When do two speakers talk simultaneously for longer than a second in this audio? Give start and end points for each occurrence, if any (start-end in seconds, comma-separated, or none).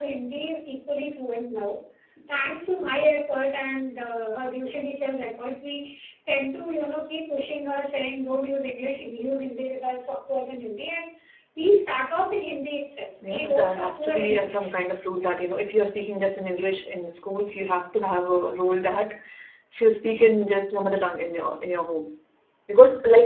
13.3-14.7